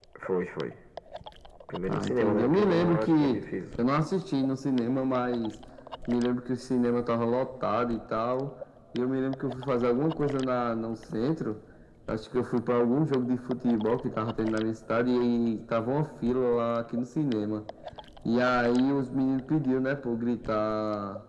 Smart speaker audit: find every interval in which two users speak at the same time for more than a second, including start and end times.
1.9-3.4

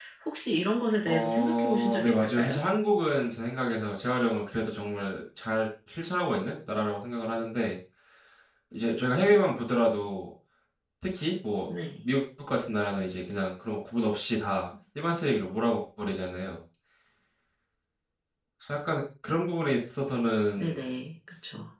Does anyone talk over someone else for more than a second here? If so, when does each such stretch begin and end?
1.0-2.6

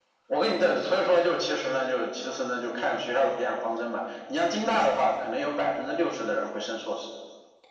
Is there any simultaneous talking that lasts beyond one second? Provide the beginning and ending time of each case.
none

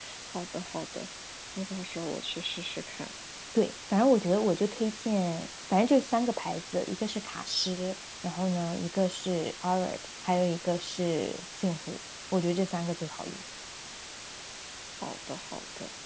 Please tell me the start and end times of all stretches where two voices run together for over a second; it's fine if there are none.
none

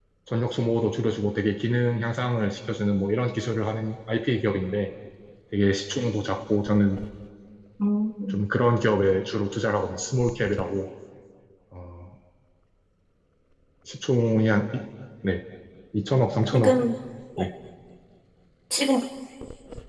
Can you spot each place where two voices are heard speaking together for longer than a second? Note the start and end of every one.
none

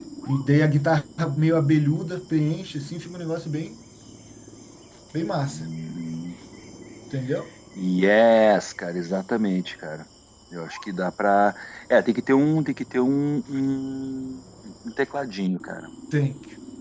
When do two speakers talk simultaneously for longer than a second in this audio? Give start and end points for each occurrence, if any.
none

